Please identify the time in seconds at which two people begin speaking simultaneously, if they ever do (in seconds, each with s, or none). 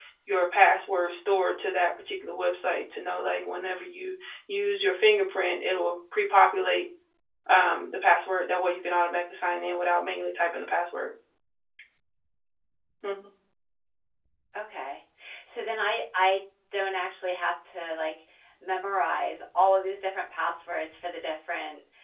none